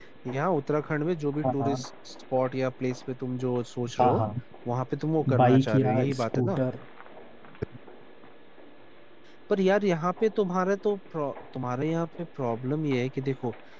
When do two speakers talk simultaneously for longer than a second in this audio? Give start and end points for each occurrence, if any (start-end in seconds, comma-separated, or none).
5.4-6.6